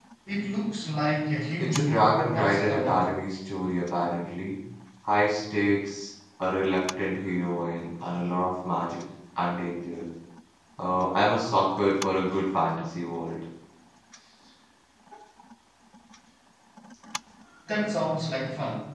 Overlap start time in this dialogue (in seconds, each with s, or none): 1.6 s